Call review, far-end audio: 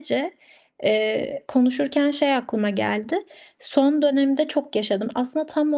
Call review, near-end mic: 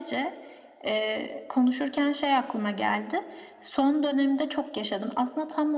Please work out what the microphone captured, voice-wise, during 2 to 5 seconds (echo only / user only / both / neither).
echo only